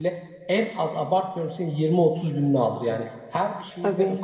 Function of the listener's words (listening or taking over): listening